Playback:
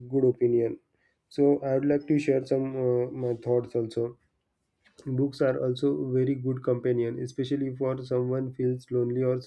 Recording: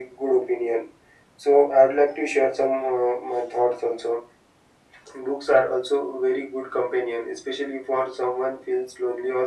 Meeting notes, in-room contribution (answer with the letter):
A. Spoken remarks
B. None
B